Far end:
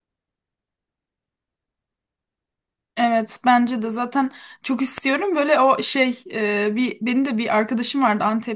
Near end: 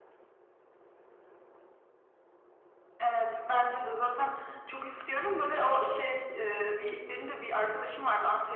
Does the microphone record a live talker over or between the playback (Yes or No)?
No